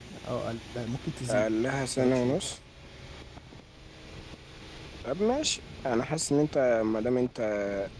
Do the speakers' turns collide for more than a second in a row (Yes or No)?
No